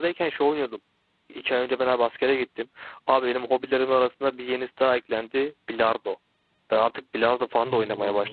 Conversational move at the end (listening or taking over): listening